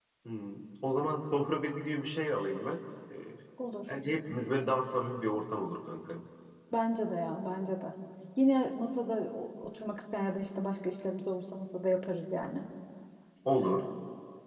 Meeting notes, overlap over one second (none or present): none